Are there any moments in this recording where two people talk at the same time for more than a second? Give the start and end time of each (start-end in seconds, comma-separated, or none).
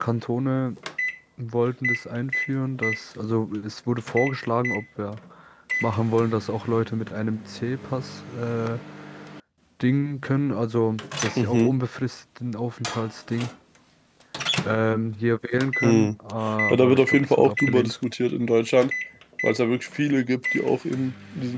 16.7-18.0